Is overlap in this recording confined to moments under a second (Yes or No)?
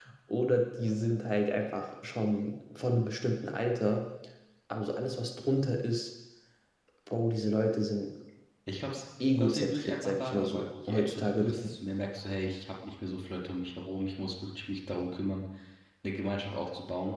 No